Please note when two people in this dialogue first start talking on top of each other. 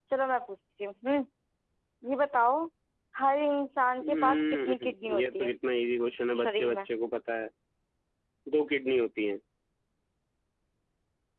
4 s

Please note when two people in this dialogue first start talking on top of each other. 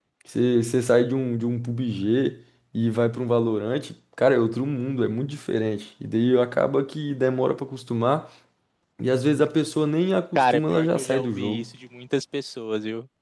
10 s

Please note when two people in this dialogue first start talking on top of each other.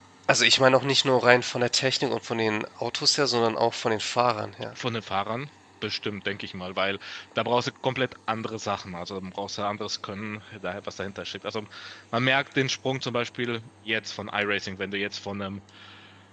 none

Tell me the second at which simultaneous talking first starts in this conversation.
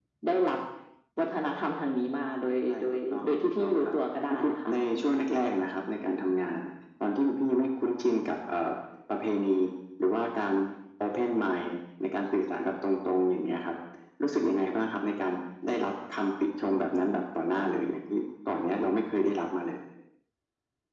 3 s

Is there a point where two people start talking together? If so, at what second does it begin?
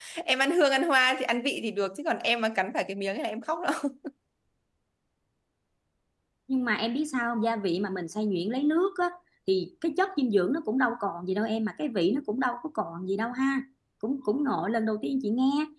none

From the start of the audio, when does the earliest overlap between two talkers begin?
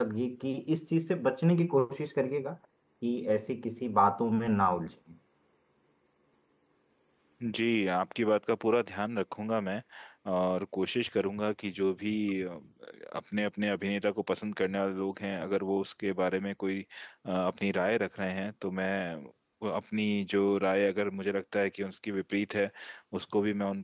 none

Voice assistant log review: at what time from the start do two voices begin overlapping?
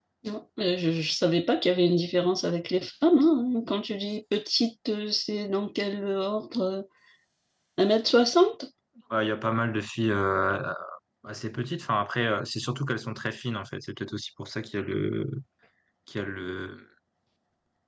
none

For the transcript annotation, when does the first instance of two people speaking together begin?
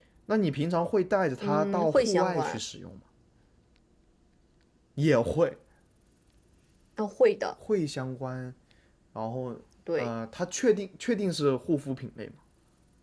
1 s

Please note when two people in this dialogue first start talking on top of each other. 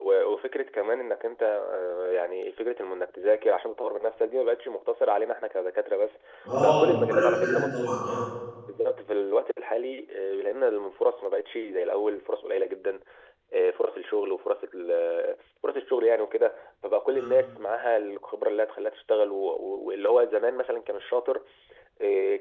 7 s

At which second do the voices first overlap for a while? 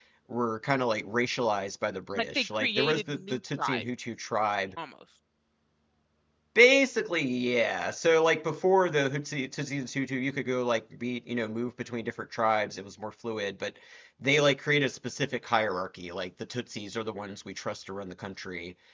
2 s

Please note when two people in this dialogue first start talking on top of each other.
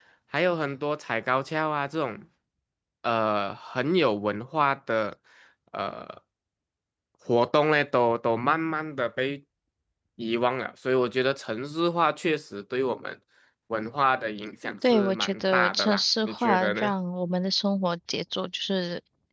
15 s

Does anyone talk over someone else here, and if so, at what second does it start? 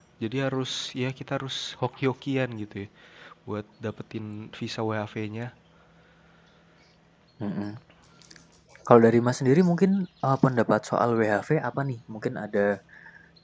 none

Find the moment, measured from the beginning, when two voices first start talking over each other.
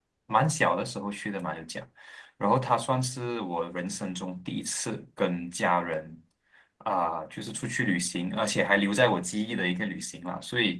none

